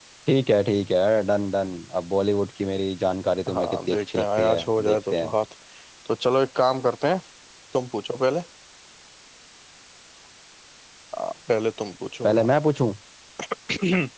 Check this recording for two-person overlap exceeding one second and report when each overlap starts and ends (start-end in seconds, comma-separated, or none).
3.5-5.3